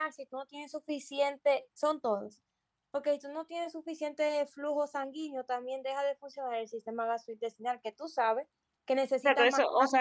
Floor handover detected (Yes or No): Yes